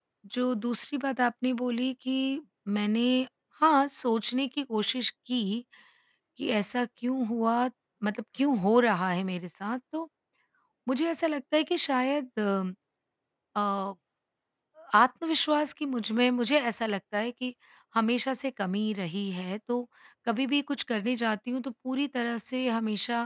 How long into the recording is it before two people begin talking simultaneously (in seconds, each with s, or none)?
none